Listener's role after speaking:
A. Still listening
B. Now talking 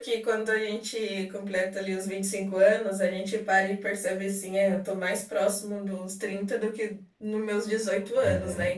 B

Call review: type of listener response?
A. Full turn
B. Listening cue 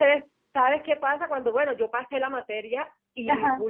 B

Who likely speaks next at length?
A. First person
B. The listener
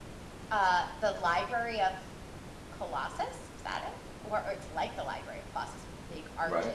A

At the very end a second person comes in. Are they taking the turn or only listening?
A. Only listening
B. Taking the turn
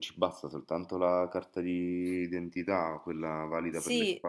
B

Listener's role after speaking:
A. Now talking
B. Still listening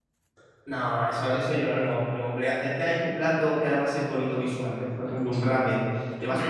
B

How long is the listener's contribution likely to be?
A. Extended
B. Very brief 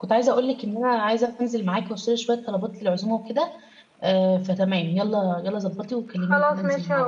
A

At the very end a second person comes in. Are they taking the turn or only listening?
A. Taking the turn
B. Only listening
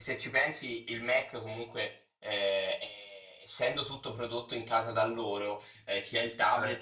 B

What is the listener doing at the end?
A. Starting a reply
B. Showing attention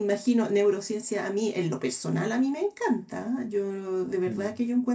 B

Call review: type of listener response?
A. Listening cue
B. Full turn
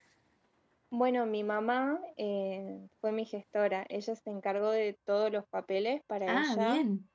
A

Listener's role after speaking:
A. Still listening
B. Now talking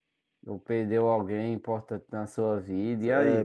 B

